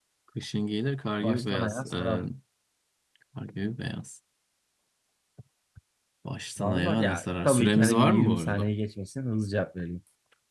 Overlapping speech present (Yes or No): Yes